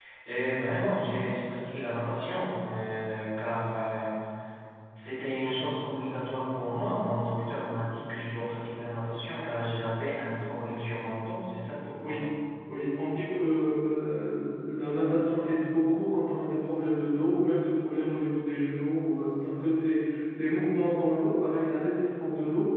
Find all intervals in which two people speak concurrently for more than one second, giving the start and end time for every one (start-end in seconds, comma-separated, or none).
none